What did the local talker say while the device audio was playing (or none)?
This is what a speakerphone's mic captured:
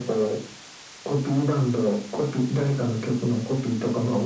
none